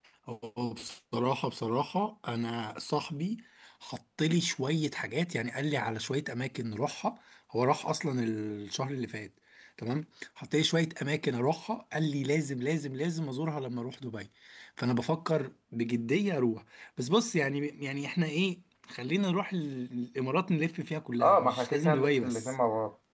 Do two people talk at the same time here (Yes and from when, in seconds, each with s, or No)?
Yes, from 21.2 s